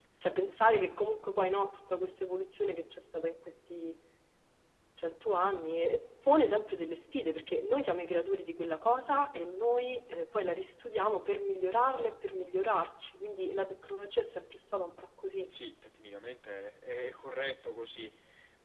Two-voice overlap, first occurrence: none

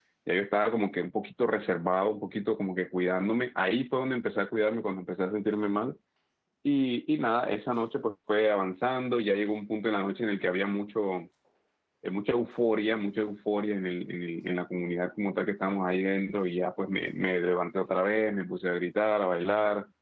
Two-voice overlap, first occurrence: none

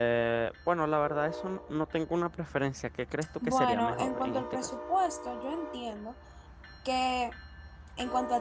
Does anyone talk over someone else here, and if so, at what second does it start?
3.4 s

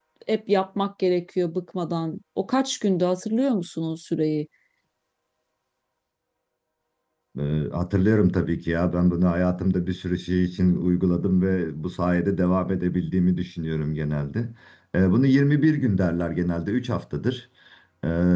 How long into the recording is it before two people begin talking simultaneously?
none

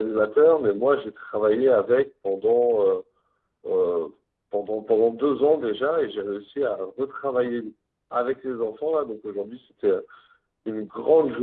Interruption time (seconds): none

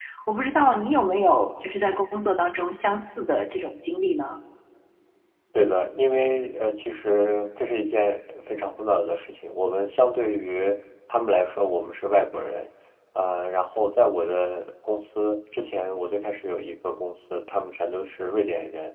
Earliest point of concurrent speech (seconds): none

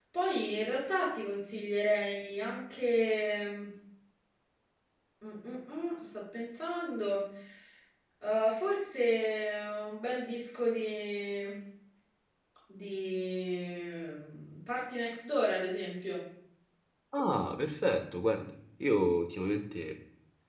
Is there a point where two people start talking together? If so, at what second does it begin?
none

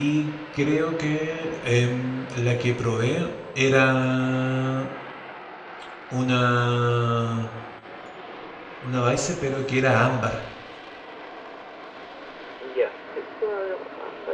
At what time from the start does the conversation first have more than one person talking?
none

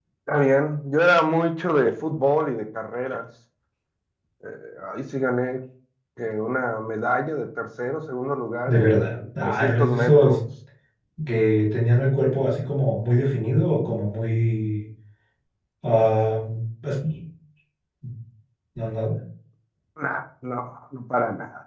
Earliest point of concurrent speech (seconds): 8.7 s

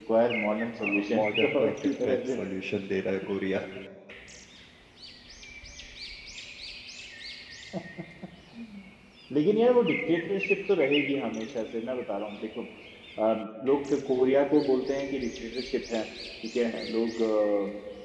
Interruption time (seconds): 0.8 s

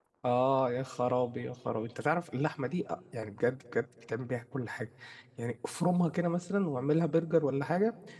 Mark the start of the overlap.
none

